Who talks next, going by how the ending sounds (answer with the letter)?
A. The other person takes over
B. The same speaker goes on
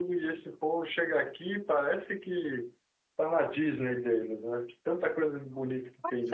A